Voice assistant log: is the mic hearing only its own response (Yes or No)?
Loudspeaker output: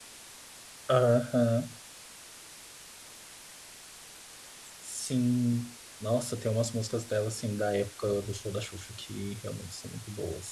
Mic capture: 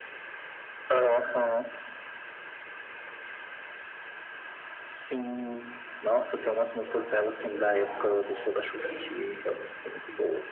No